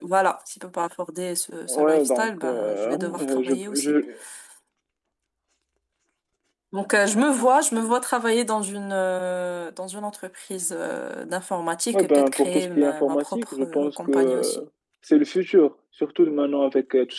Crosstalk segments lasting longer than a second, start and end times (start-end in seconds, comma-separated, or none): 1.7-3.9, 11.9-14.6